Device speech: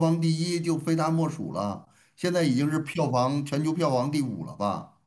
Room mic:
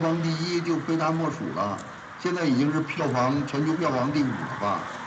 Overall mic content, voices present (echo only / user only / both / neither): echo only